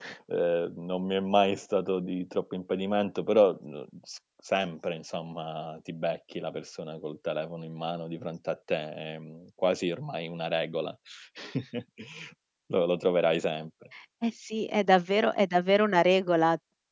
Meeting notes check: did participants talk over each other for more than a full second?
No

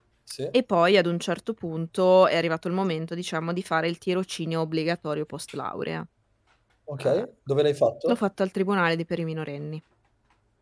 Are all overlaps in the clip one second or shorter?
Yes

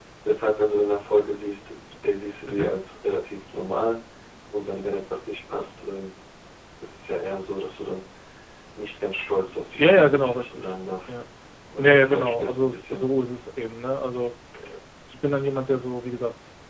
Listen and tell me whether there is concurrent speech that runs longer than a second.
Yes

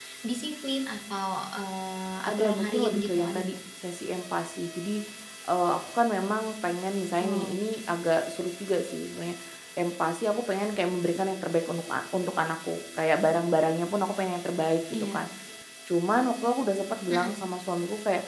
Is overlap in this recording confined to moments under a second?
No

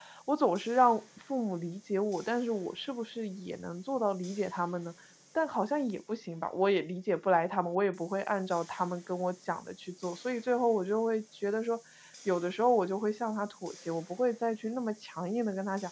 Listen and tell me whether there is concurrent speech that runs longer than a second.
No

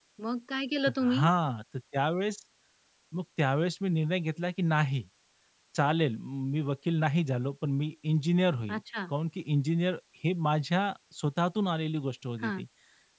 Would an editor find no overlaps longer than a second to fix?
Yes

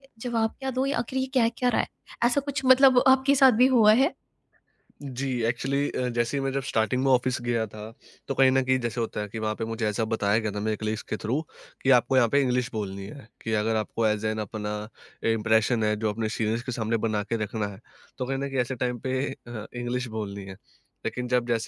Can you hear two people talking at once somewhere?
No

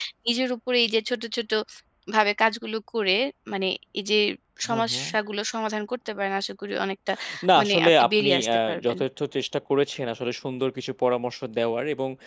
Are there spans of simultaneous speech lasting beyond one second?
Yes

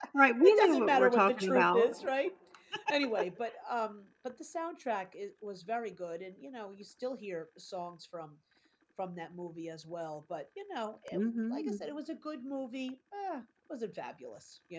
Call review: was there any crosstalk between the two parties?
Yes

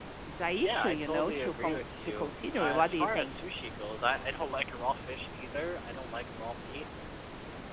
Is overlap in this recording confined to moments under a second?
No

